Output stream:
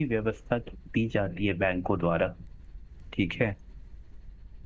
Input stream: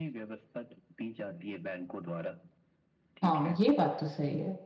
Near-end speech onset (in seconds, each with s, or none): 3.2 s